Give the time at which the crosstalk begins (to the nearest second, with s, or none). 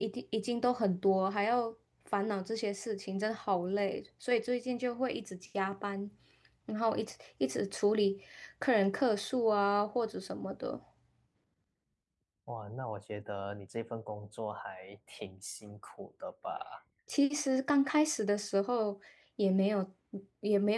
none